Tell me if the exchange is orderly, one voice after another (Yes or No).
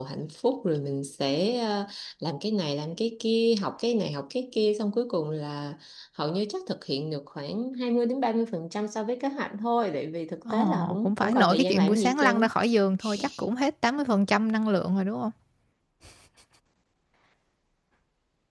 No